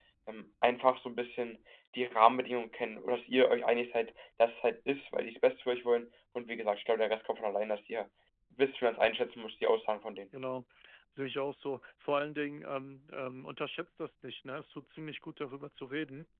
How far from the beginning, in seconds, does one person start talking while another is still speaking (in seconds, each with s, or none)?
none